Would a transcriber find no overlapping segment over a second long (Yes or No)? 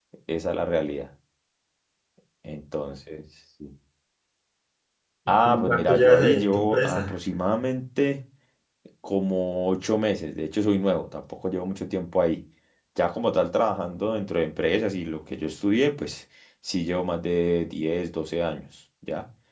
No